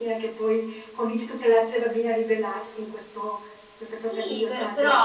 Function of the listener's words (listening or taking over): taking over